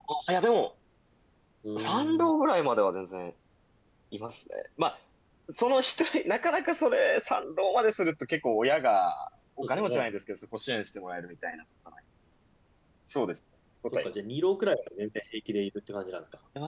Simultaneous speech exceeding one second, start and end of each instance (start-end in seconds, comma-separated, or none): none